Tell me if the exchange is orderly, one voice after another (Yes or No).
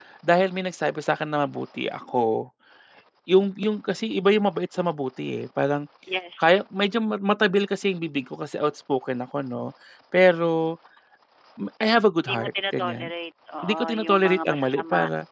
No